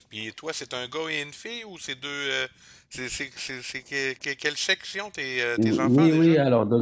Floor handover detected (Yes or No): Yes